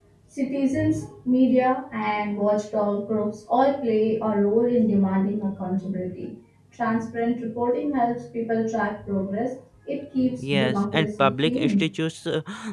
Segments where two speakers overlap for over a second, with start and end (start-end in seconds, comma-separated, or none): 10.4-11.8